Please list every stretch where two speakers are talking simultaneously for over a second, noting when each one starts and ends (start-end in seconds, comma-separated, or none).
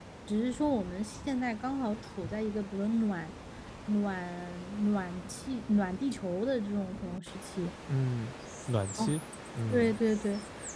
none